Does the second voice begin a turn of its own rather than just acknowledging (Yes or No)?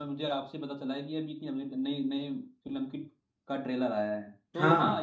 No